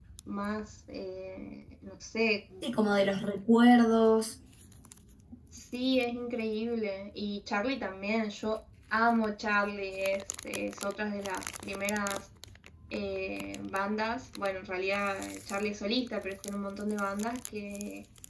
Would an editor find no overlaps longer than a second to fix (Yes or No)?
Yes